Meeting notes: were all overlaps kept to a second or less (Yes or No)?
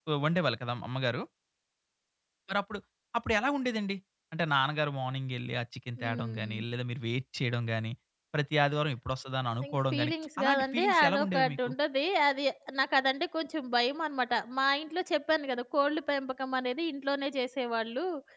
No